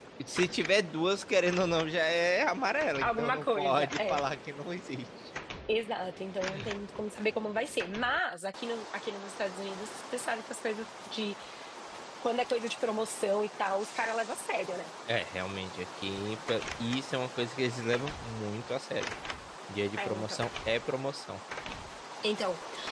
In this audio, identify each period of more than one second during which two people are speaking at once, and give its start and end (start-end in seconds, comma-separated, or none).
3.0-4.2